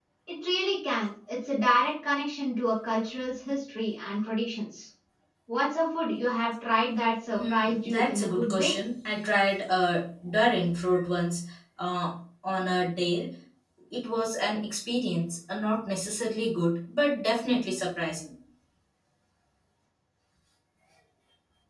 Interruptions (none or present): present